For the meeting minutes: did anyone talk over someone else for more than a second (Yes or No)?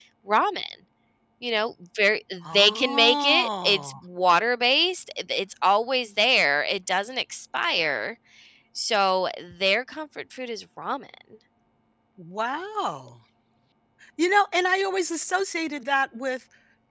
Yes